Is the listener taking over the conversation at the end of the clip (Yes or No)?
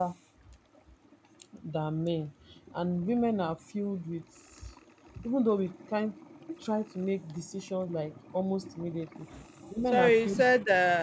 Yes